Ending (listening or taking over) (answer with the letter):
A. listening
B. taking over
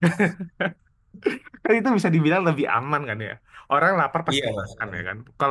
A